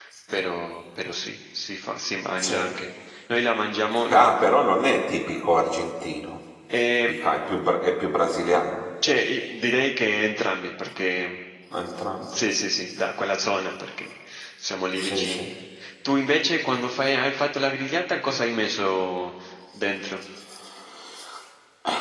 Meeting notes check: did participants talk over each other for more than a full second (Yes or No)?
No